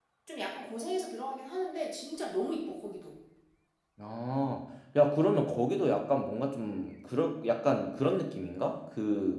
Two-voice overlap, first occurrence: none

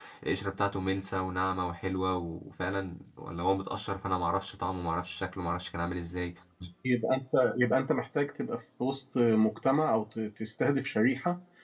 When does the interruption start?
none

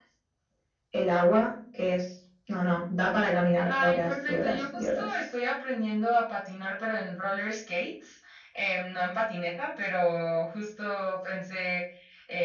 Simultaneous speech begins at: 3.7 s

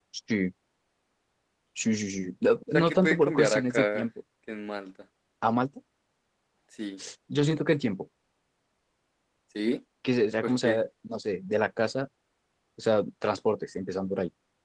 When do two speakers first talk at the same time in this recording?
2.7 s

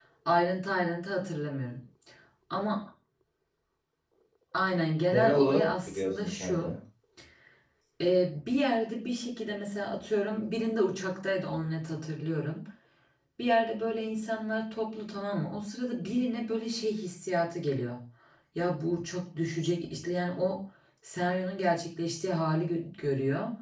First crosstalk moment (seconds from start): 5.1 s

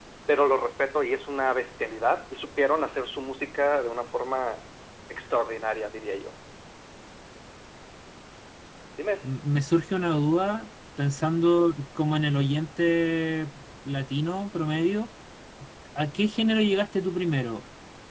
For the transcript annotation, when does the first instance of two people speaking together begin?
none

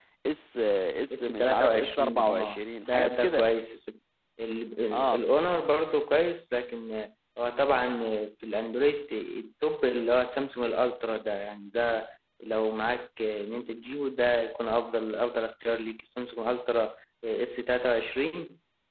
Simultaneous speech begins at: 1.1 s

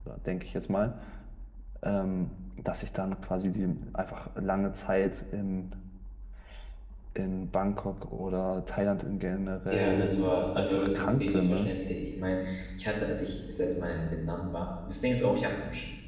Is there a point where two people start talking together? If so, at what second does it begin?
9.7 s

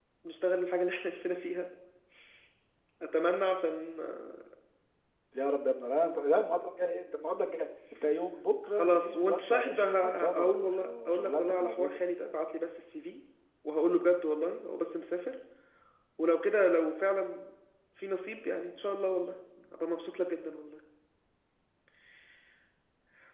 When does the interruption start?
8.8 s

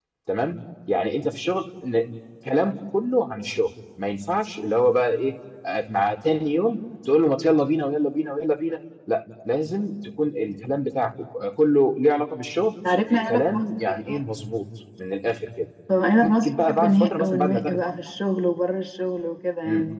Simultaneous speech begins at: 12.9 s

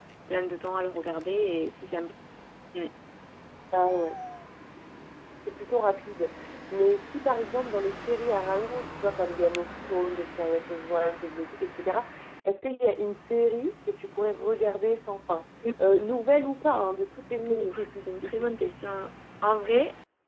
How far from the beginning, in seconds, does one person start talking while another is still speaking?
17.4 s

